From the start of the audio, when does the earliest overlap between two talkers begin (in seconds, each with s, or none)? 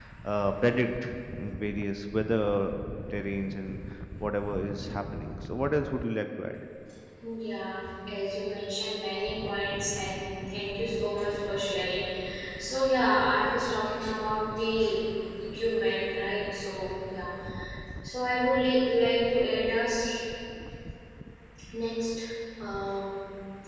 none